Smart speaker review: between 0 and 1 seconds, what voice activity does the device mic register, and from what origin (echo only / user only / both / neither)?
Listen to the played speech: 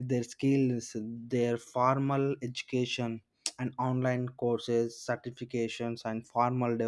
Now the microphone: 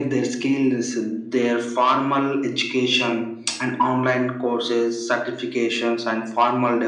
echo only